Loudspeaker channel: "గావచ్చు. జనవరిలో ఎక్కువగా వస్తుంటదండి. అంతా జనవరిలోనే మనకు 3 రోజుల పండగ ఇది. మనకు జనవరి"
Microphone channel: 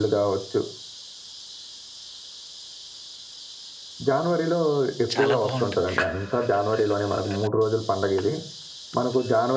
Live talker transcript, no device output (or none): చాలా బావుంటుంది.